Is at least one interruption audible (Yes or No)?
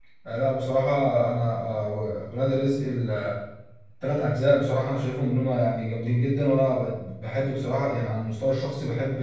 No